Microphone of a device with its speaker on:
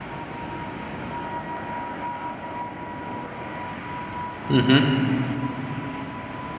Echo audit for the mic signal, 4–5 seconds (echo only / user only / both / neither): user only